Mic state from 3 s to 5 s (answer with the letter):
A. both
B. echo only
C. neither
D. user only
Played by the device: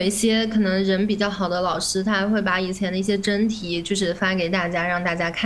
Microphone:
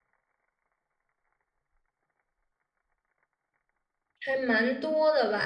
D